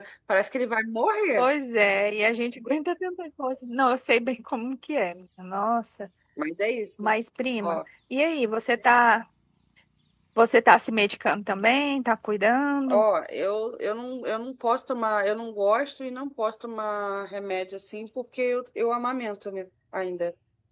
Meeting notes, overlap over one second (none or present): none